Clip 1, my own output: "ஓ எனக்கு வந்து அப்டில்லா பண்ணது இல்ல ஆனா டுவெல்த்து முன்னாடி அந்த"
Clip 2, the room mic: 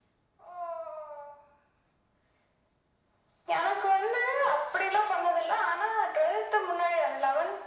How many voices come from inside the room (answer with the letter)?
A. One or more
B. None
B